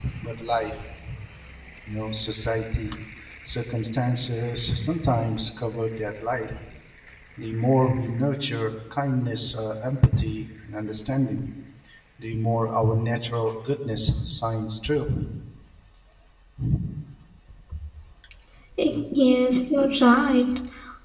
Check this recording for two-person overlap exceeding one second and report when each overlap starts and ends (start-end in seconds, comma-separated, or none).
none